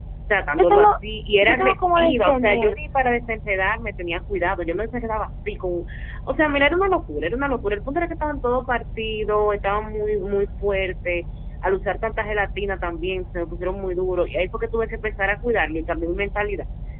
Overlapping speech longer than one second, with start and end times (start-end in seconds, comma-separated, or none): 1.4-2.7